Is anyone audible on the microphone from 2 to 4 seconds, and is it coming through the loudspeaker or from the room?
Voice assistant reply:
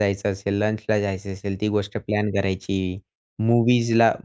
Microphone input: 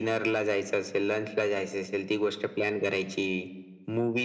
echo only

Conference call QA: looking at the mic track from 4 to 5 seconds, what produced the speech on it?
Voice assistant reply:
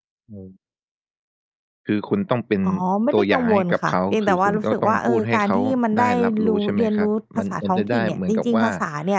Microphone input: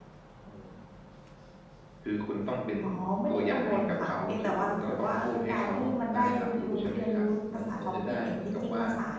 echo only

